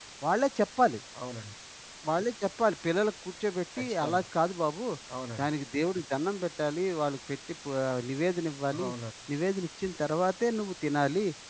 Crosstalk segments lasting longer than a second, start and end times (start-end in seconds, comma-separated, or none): none